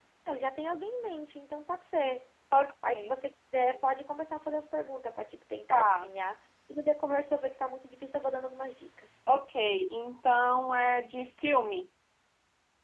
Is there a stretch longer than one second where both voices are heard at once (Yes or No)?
No